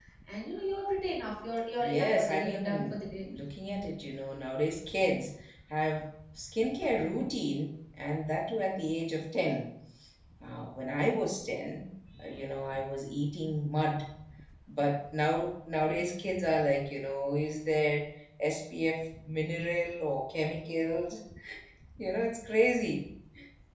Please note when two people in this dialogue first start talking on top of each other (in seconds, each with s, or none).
1.8 s